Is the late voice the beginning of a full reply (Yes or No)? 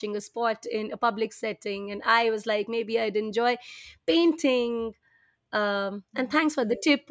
No